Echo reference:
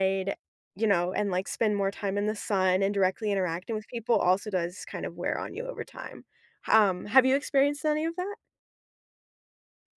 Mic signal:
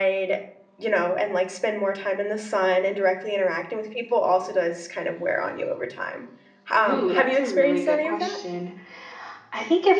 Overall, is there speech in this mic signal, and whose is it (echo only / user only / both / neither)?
both